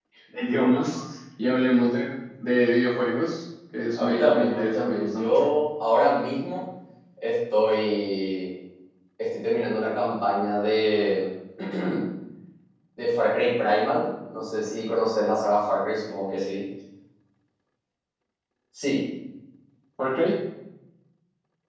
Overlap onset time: 4.0 s

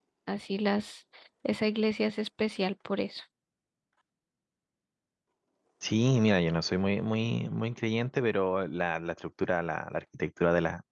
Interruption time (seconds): none

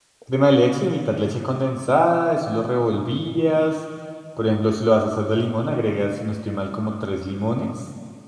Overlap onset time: none

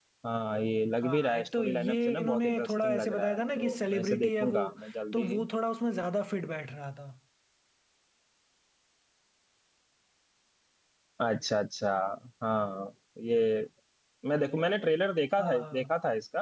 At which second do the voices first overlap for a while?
1.0 s

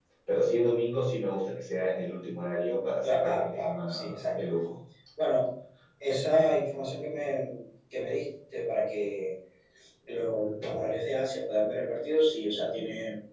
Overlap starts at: 3.0 s

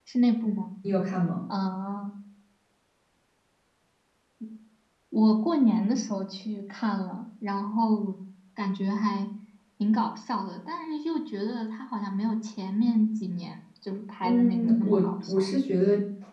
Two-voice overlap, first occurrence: 14.2 s

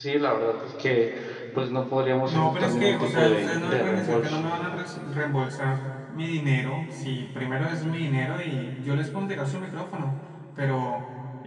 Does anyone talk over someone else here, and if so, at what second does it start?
2.3 s

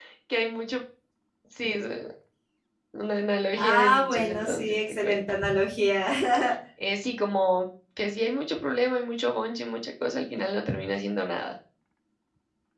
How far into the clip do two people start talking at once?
3.6 s

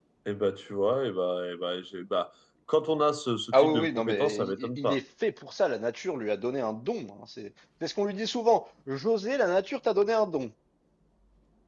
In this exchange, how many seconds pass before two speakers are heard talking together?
3.5 s

